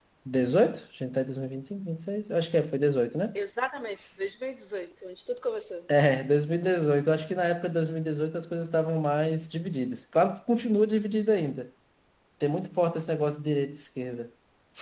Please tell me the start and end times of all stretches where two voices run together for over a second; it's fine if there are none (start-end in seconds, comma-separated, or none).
none